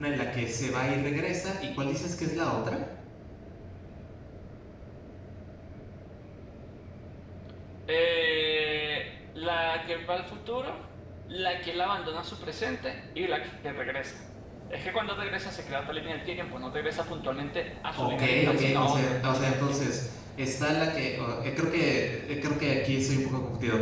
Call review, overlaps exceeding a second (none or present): present